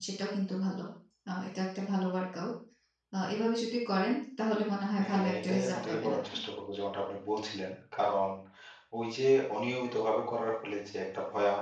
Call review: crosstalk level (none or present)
present